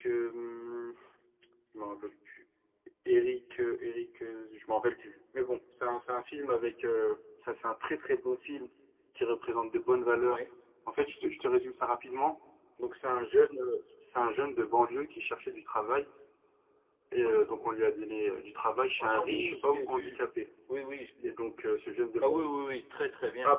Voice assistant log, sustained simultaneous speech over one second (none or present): present